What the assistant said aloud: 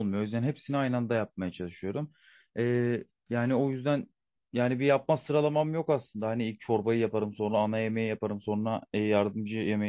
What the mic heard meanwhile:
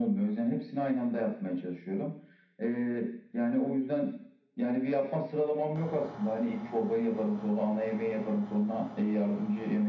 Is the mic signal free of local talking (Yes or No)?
Yes